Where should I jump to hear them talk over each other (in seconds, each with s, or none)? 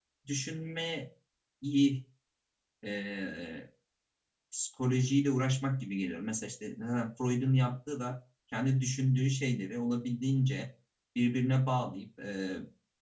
none